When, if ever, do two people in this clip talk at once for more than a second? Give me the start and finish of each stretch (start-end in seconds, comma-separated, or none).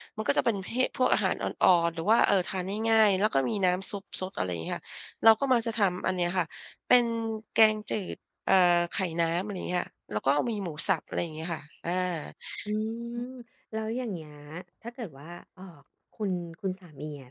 none